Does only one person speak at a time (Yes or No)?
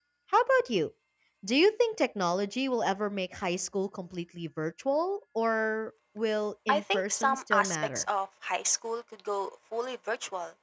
No